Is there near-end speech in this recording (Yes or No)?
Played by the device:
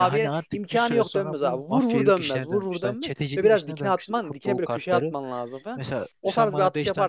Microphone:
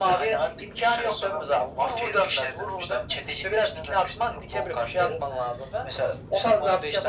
No